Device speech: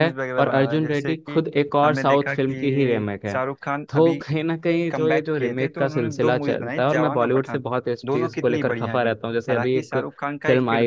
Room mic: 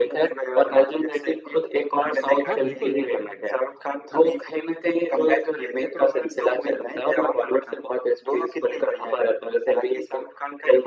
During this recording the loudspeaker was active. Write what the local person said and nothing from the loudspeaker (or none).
हाँ बिल्कुल